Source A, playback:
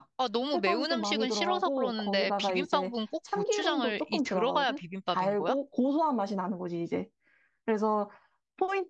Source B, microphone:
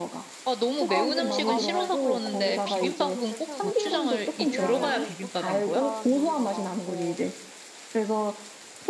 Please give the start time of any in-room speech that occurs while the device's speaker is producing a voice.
0.9 s

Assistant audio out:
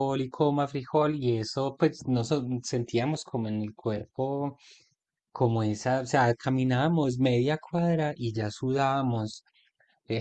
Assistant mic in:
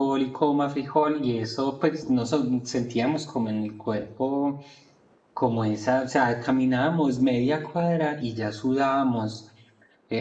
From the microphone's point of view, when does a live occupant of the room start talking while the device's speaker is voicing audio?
none

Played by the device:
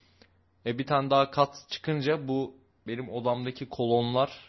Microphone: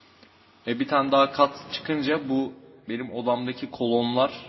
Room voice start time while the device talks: none

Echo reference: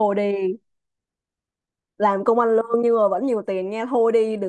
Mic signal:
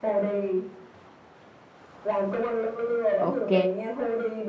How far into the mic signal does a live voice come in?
3.2 s

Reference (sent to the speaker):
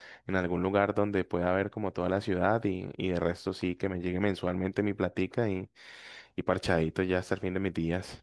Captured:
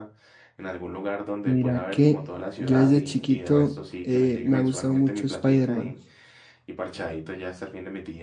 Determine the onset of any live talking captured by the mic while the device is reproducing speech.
1.4 s

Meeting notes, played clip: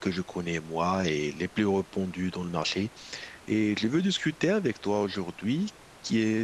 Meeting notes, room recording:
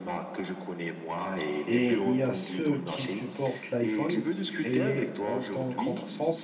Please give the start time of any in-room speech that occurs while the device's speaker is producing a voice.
1.7 s

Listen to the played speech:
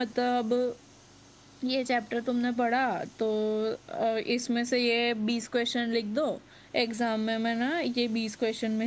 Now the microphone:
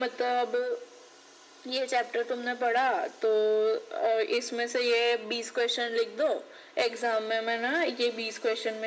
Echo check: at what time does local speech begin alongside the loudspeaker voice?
none

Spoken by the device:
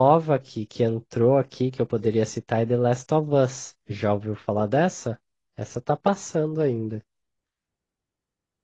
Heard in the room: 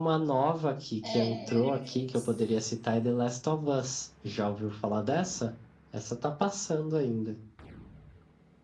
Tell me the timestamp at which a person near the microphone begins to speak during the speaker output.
1.0 s

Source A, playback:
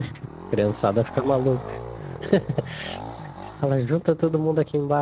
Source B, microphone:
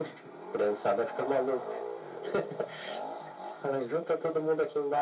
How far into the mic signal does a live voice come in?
none

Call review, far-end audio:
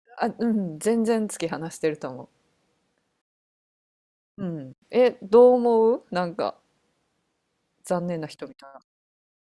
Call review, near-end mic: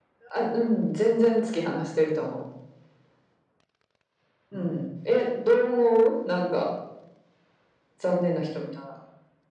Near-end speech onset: none

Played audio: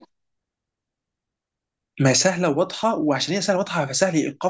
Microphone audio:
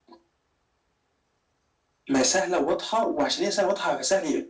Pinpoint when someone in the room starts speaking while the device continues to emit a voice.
none

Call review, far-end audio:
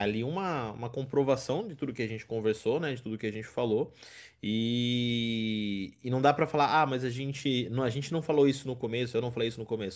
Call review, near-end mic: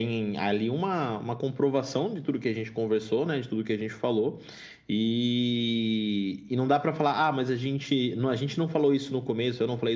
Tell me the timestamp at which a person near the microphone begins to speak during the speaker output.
none

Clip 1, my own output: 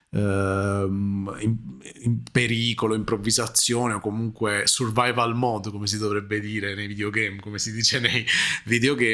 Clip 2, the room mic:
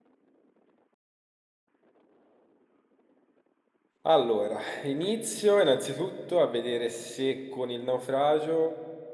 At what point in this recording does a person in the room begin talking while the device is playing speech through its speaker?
4.0 s

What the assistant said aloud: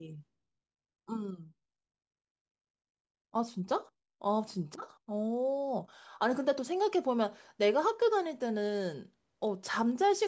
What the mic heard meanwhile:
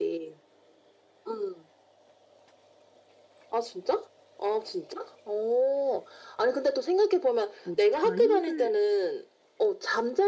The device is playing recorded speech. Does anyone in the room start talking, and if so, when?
7.6 s

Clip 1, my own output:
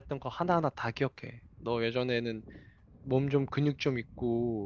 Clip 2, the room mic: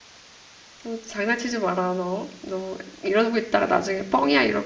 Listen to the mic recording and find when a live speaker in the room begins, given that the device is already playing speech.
0.8 s

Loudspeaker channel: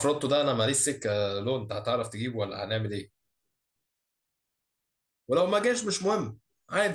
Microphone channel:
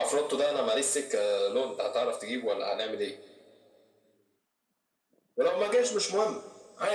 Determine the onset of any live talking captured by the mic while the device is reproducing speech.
none

